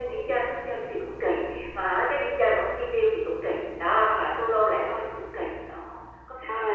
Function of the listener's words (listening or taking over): taking over